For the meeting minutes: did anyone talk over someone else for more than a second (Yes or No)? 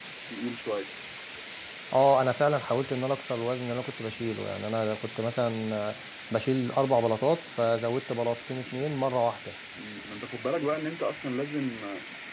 No